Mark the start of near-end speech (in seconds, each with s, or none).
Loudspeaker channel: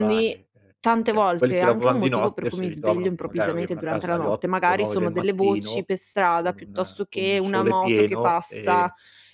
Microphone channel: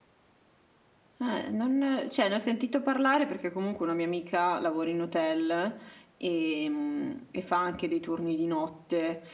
1.2 s